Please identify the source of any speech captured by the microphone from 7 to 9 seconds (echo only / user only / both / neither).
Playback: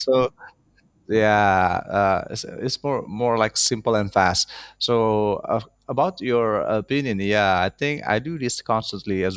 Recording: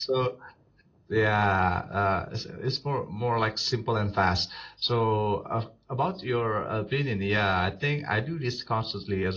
echo only